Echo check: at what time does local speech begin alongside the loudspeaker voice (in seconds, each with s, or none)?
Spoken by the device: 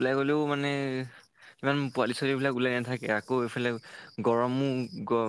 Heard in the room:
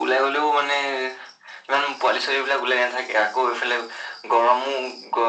none